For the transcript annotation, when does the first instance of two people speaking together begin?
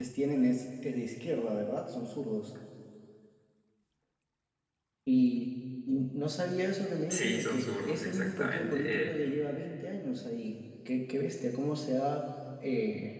7.1 s

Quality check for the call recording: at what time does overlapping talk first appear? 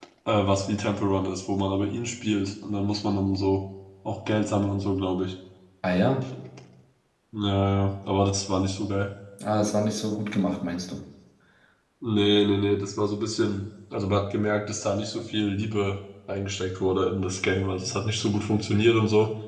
none

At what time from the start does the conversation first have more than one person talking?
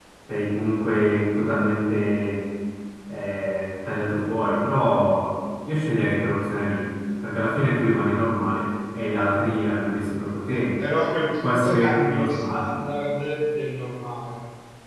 11.4 s

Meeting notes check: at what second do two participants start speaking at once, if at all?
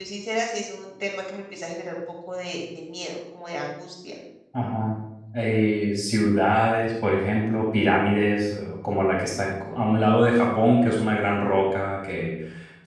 none

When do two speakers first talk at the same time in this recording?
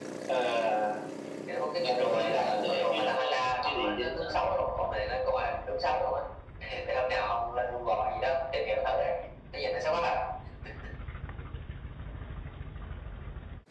1.8 s

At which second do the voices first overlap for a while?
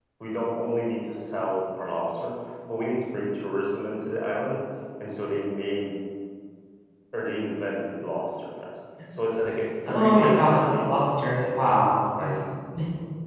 9.9 s

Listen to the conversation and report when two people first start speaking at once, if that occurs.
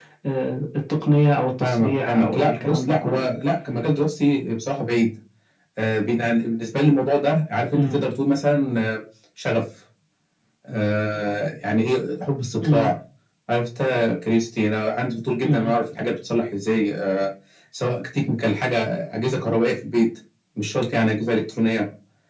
1.6 s

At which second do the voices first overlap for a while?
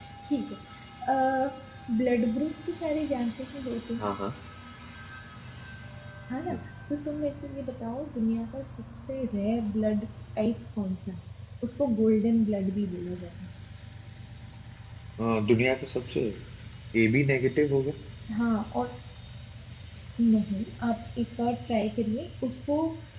none

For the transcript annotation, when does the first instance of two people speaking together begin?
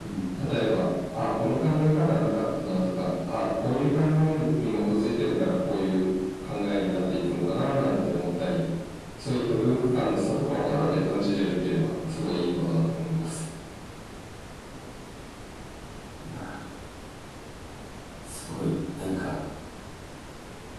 none

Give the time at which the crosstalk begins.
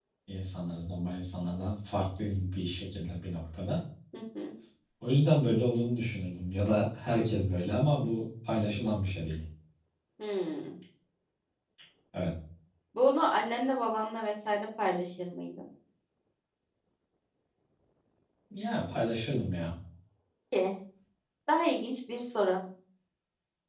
none

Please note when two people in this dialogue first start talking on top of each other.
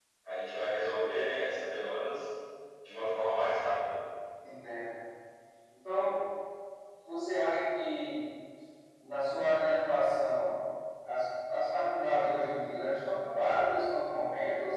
none

